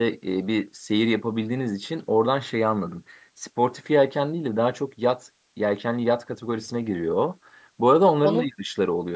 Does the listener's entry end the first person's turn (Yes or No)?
No